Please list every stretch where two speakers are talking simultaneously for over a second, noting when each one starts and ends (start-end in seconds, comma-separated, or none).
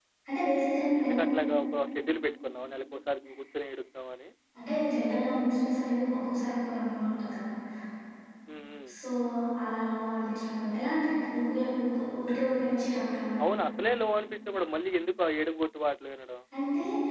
none